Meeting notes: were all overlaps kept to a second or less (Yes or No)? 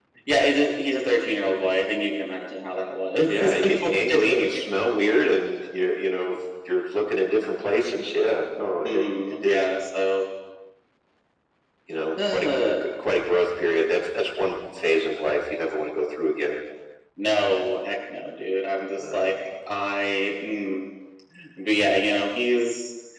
No